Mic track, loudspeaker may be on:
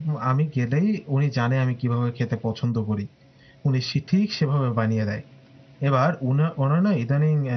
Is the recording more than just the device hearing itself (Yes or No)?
Yes